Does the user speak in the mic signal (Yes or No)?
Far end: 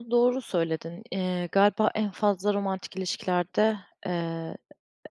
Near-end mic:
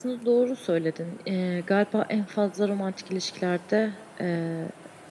No